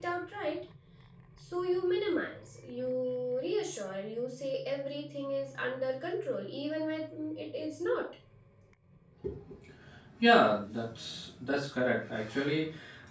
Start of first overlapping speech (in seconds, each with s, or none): none